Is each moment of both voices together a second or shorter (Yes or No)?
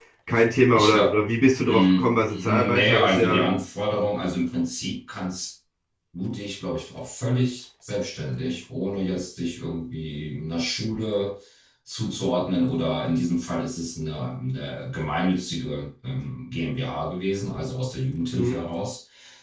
No